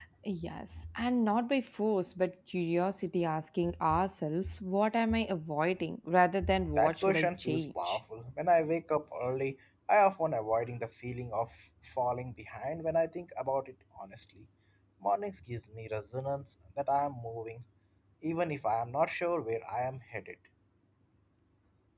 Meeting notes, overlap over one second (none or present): present